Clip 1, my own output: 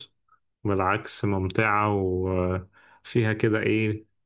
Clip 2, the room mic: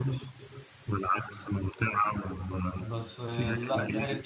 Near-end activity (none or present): present